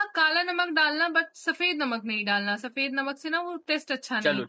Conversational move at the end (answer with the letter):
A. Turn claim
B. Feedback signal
A